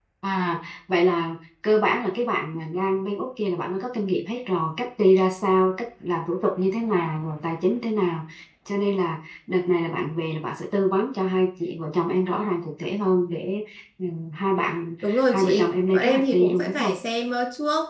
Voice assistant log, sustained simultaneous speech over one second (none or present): present